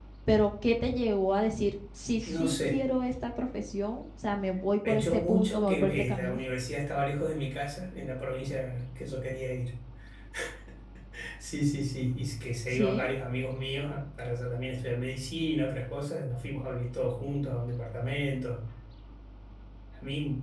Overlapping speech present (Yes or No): Yes